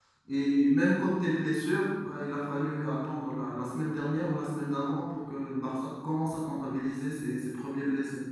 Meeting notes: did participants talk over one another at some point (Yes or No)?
No